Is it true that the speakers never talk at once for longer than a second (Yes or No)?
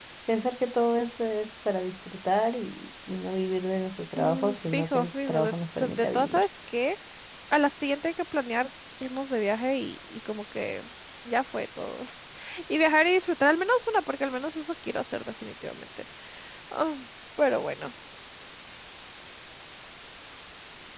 No